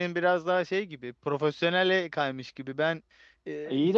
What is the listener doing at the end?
listening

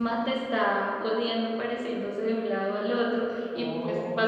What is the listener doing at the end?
listening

